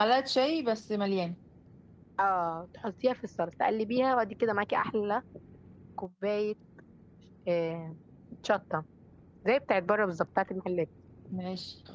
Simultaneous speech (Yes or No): No